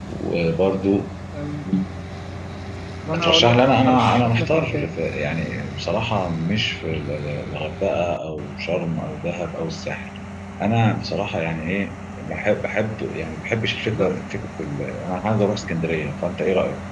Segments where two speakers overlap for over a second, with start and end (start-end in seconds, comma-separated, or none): 3.1-4.9